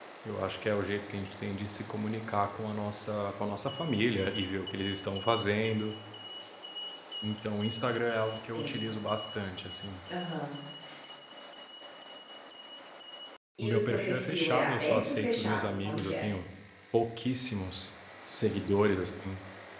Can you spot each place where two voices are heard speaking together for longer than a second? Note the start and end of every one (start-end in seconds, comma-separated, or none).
13.6-16.2